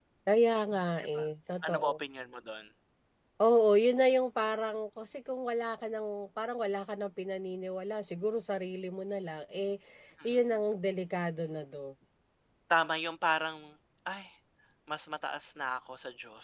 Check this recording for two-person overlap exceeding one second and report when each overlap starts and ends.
none

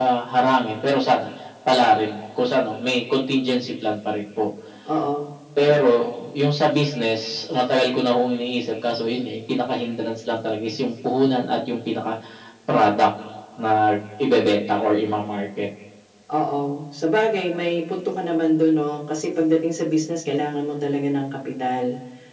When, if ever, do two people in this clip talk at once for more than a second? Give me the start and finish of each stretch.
none

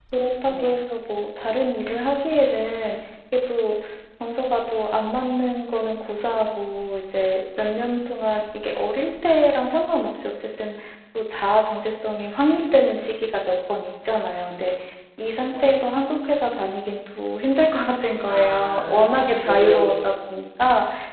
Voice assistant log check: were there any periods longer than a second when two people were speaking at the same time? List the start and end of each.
18.3-19.9

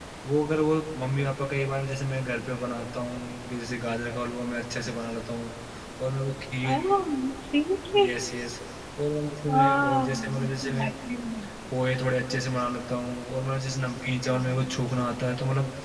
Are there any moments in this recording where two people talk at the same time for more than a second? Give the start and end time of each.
9.5-10.9

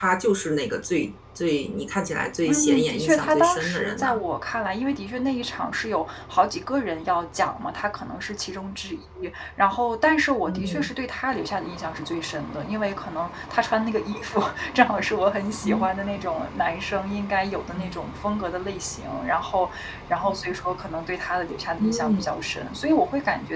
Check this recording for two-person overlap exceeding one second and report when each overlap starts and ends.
2.5-4.2

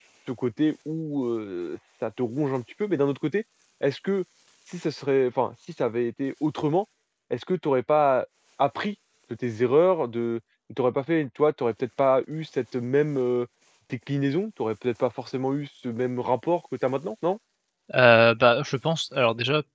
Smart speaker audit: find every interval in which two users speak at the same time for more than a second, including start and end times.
none

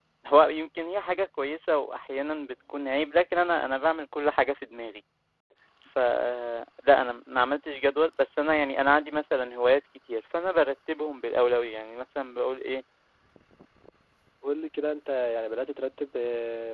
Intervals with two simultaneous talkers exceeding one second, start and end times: none

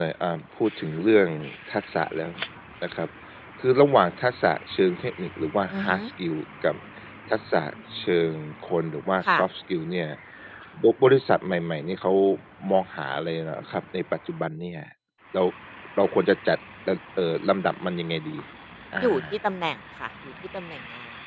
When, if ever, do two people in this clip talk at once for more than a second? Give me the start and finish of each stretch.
none

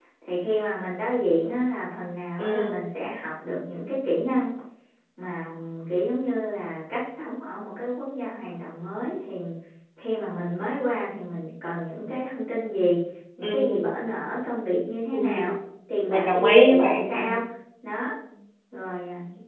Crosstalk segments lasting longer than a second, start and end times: 16.1-17.3

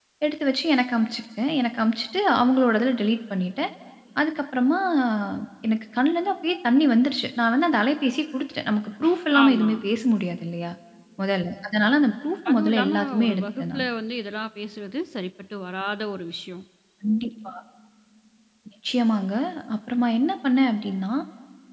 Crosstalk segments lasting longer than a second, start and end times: 12.5-13.9

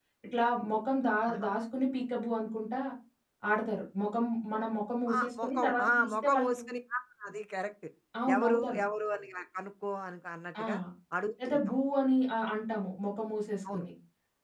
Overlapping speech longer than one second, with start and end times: 5.2-6.6

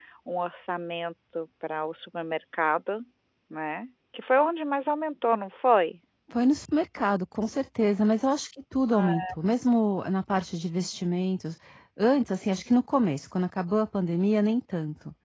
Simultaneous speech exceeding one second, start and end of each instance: none

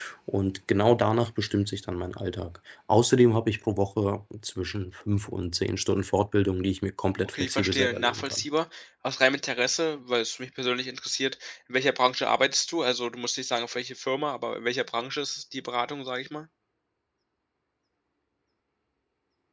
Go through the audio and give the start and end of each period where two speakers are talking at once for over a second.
7.2-8.4

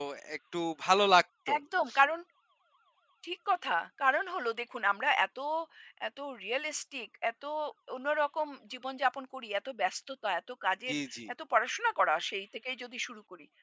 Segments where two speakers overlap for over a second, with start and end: none

